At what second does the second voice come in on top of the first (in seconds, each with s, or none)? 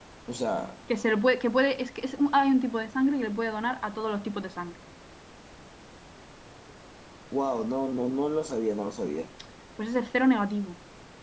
none